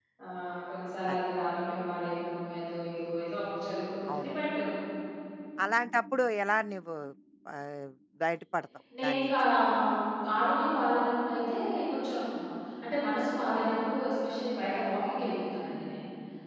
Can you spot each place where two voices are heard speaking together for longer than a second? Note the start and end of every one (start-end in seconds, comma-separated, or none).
none